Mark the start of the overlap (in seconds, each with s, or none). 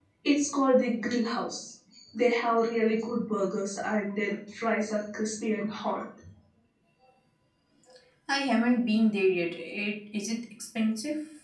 none